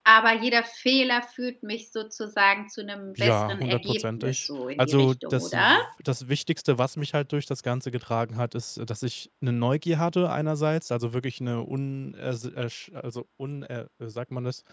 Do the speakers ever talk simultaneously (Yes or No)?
Yes